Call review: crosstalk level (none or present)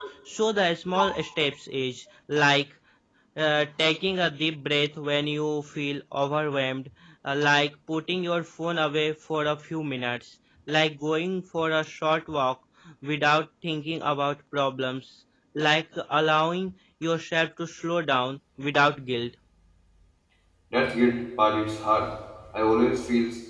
none